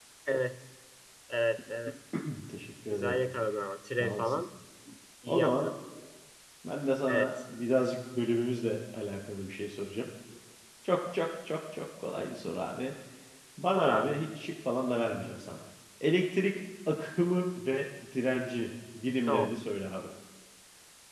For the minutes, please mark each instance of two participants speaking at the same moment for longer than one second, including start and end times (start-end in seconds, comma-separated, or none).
none